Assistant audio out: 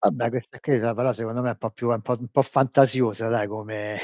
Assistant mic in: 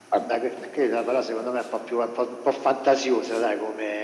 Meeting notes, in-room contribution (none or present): none